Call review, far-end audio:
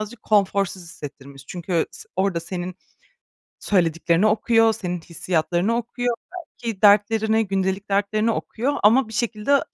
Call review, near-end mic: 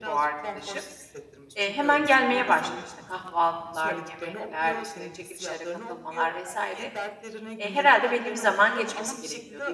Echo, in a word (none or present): present